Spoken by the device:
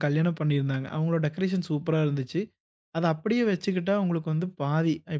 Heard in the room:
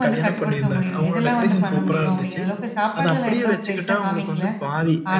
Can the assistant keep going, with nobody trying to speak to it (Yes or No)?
No